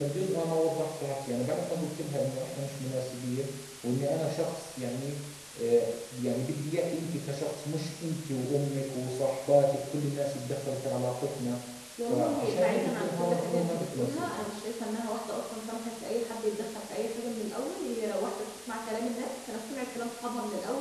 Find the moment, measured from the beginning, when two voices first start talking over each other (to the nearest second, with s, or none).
12 s